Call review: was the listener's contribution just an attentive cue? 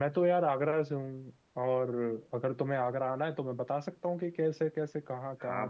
No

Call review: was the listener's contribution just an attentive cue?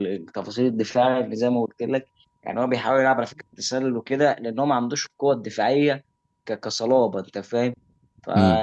Yes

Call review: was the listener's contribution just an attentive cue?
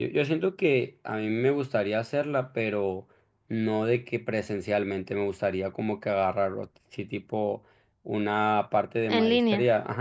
Yes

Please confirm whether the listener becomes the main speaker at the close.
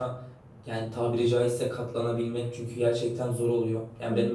No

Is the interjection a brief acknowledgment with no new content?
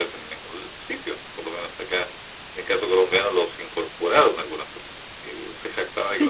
No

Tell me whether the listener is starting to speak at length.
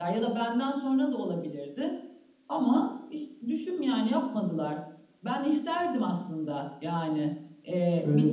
No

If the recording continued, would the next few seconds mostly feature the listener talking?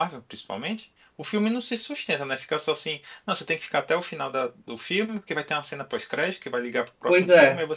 No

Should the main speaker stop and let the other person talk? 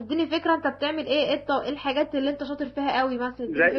Yes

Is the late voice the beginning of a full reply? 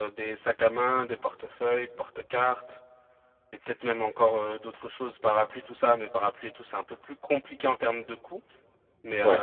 No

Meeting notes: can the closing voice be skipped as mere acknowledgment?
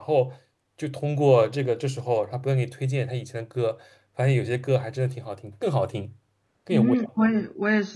No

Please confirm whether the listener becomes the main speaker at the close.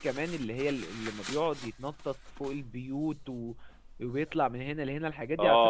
Yes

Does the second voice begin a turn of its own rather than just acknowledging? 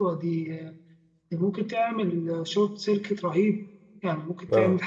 Yes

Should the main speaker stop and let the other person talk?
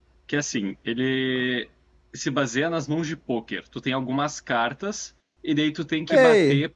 Yes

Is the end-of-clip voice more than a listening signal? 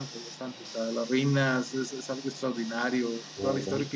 No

